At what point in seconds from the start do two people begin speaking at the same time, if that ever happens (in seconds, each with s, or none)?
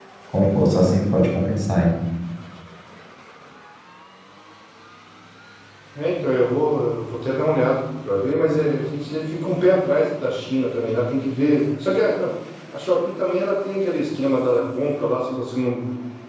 none